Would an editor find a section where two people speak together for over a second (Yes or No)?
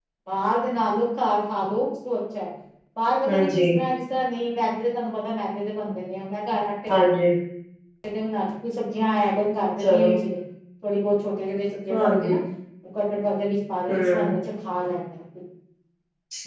No